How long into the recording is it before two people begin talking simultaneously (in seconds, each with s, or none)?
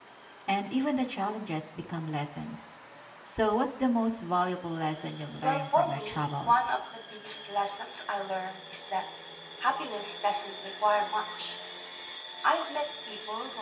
5.4 s